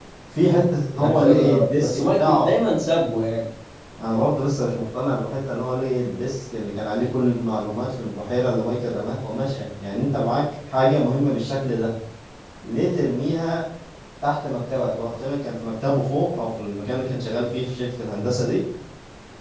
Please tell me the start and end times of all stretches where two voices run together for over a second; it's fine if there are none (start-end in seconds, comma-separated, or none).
0.9-2.5